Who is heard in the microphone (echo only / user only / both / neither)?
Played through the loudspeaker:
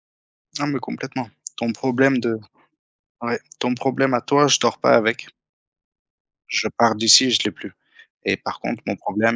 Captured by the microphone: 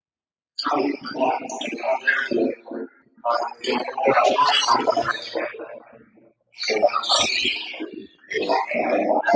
both